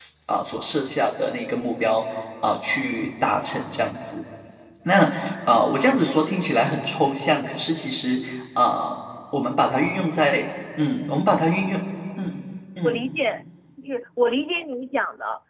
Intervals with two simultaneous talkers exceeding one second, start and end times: none

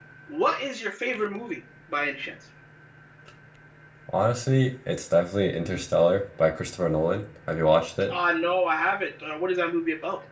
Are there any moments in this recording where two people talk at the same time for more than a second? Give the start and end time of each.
none

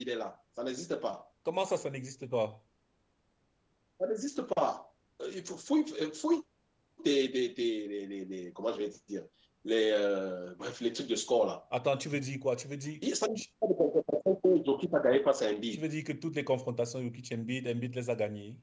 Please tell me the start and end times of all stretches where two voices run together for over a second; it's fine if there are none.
none

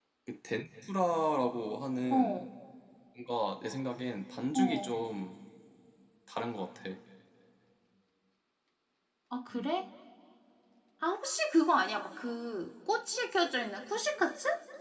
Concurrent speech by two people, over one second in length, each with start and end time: none

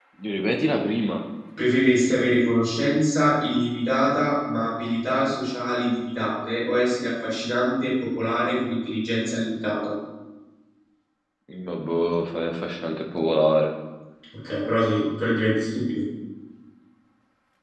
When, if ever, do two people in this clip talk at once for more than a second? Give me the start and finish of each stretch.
none

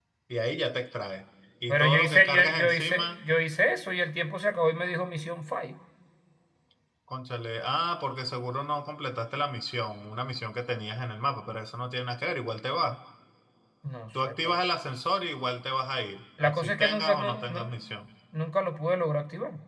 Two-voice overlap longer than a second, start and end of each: 1.7-3.2, 16.4-17.9

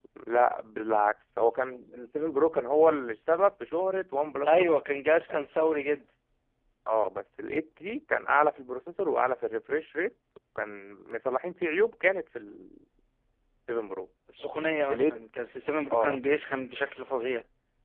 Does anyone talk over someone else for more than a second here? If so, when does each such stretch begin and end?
none

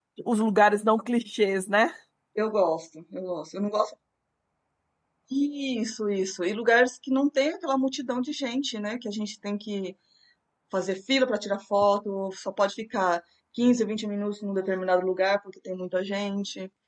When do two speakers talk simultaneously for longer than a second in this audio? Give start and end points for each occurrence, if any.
none

